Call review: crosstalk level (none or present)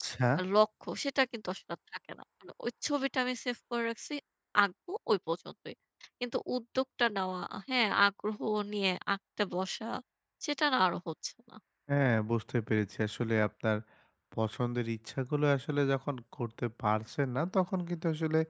none